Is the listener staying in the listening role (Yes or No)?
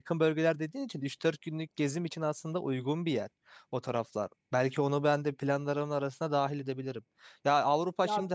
Yes